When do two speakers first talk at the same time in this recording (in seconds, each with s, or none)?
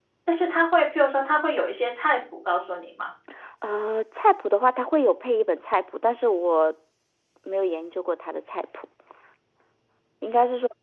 none